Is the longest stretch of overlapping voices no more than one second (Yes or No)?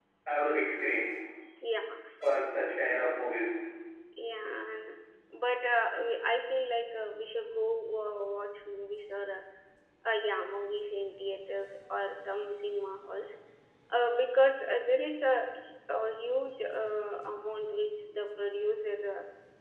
Yes